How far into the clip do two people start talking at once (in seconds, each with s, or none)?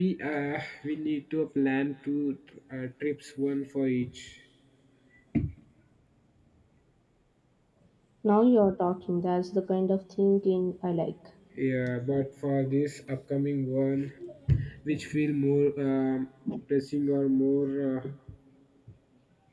none